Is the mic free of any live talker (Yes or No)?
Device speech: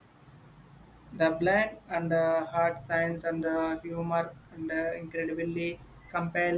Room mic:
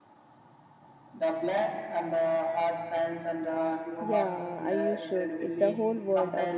No